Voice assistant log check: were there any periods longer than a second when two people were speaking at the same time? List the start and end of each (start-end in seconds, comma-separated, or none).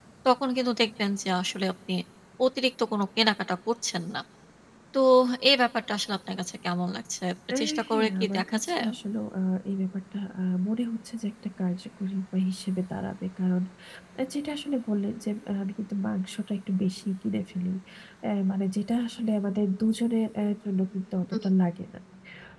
7.6-8.8